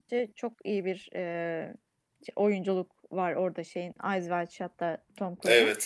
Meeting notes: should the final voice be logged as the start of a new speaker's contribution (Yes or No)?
No